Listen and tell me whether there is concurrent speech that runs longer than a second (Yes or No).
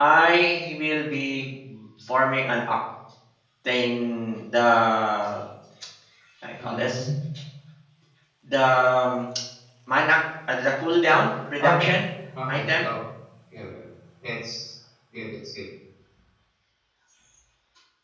No